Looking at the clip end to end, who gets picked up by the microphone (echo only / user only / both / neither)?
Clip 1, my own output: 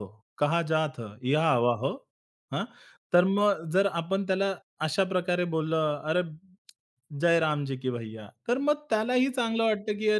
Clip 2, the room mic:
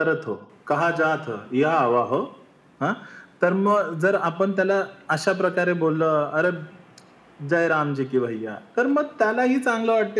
echo only